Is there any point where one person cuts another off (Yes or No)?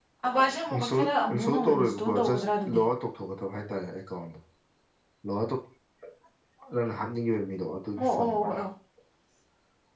Yes